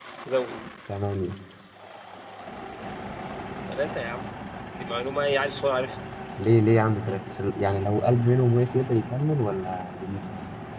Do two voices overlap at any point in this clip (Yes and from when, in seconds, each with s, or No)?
No